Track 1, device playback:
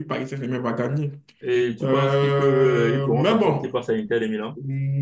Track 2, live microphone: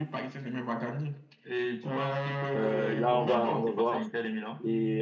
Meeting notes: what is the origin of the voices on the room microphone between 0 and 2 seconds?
echo only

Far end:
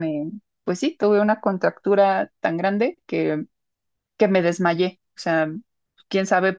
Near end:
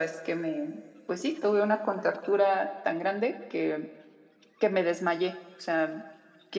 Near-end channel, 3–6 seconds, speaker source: echo only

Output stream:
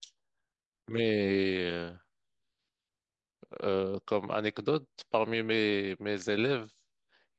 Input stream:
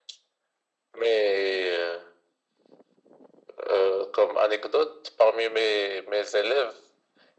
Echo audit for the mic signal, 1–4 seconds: echo only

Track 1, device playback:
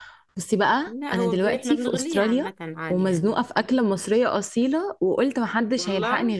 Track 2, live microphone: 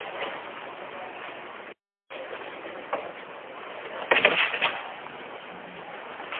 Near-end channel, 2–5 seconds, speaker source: neither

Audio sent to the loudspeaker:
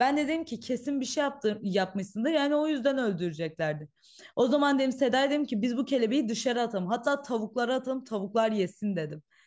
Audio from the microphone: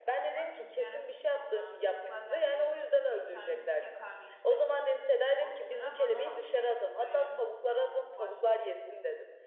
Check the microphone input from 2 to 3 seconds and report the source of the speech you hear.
both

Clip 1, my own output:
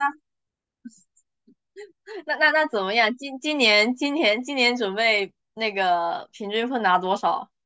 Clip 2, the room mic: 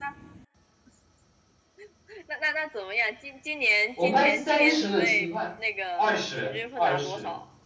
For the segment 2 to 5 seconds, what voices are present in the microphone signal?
both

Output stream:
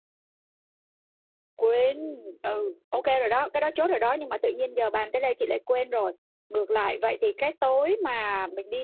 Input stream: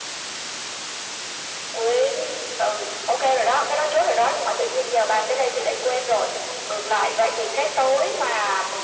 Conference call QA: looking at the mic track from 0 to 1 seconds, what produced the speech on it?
neither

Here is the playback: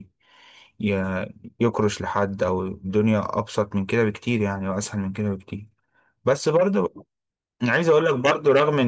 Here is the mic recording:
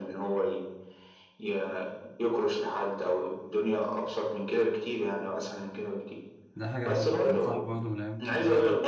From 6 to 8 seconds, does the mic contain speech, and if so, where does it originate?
both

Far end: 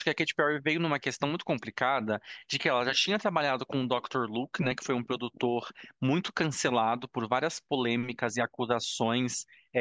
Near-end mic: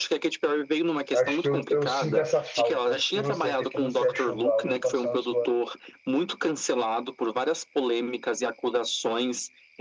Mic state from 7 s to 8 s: echo only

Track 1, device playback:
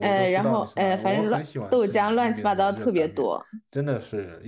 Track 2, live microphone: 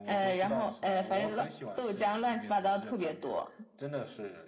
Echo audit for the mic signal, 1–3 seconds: echo only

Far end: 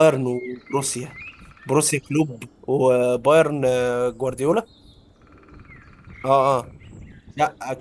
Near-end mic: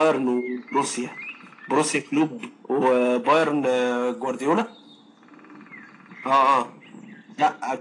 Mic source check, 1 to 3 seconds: echo only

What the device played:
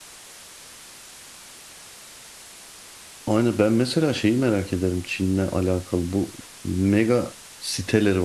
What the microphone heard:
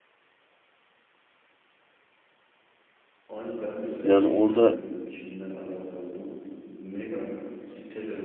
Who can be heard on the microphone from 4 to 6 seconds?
both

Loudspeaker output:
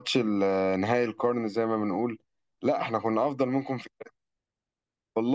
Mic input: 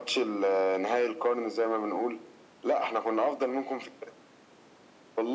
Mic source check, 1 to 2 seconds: echo only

